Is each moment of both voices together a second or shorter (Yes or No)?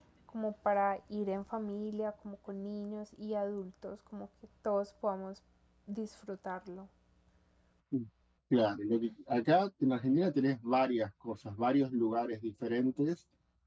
Yes